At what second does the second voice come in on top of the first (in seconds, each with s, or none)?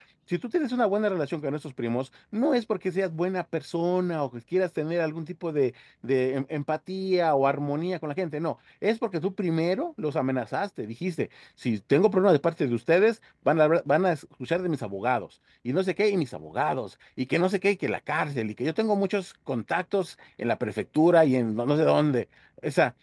none